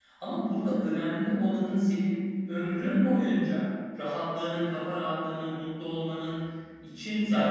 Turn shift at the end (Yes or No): Yes